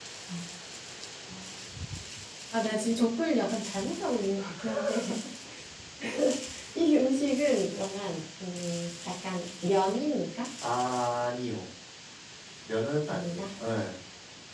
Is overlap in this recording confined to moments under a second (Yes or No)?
Yes